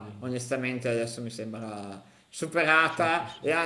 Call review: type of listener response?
listening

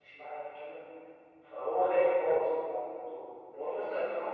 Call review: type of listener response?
taking over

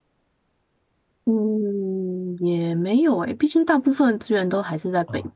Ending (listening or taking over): taking over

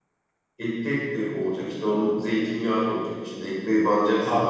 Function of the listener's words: taking over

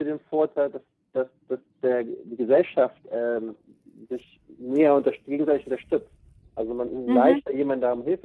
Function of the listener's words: listening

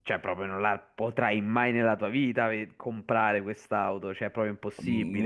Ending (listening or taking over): taking over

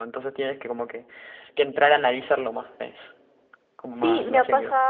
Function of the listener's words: taking over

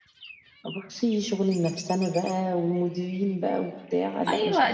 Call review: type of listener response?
taking over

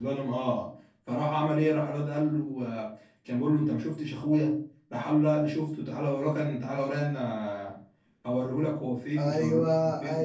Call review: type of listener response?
taking over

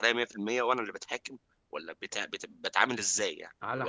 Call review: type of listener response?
taking over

